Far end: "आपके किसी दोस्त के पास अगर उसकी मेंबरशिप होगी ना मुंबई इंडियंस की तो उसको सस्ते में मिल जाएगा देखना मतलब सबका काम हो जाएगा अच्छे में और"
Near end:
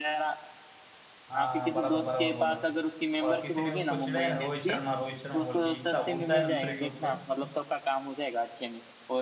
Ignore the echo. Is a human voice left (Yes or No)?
Yes